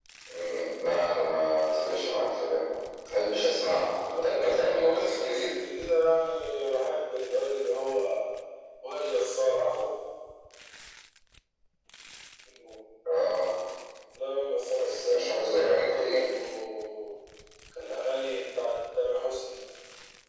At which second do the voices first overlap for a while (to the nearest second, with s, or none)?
4 s